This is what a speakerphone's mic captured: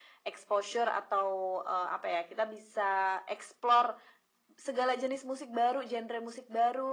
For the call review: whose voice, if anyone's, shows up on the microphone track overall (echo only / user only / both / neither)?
echo only